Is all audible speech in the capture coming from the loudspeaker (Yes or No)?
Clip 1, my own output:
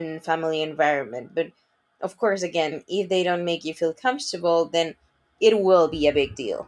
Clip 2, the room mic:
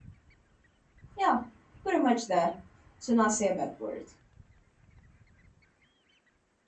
No